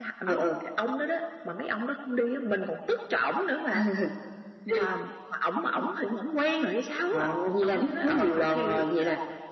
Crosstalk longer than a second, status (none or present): present